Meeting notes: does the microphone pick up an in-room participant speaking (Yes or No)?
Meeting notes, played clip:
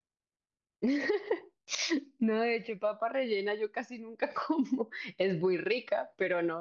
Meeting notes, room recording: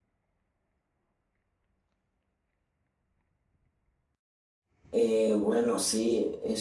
Yes